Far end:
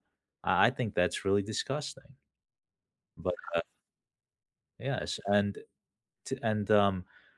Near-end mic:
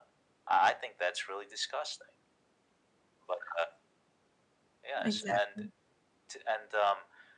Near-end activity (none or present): present